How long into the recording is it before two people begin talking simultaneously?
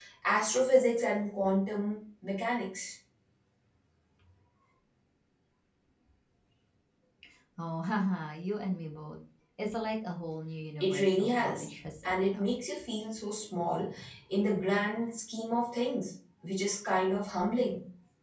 10.8 s

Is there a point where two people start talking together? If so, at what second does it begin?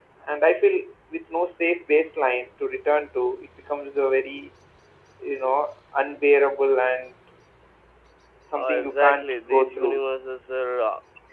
8.6 s

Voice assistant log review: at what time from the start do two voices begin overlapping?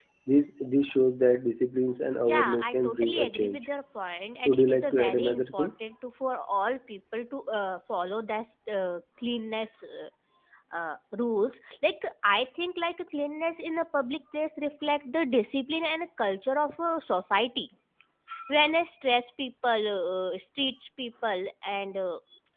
2.3 s

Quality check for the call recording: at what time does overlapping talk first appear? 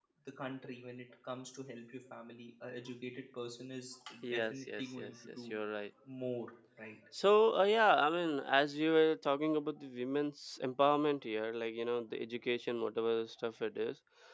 4.2 s

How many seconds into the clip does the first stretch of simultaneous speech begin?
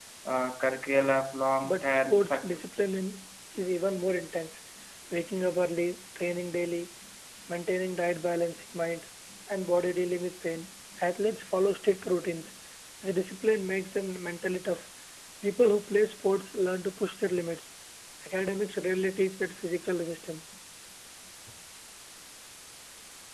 1.5 s

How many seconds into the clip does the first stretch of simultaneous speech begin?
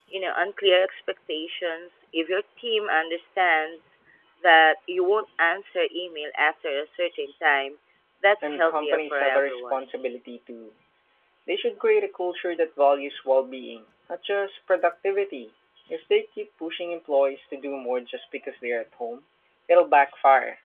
8.4 s

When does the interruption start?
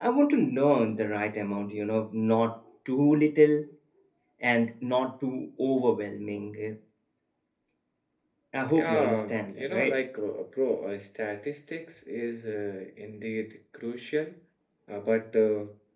8.7 s

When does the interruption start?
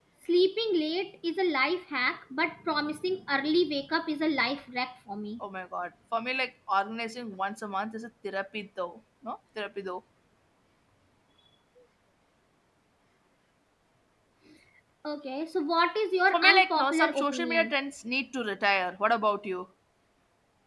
16.3 s

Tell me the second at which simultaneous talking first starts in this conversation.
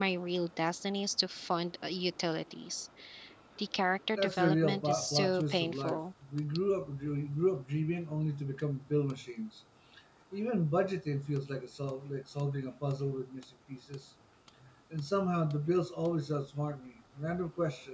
4.2 s

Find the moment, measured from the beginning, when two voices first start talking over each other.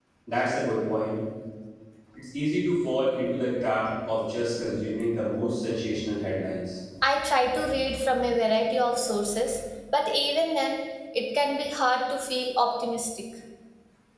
none

